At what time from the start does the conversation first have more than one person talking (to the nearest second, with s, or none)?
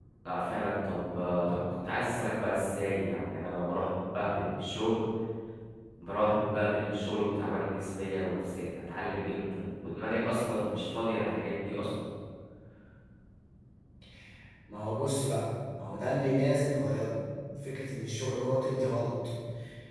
none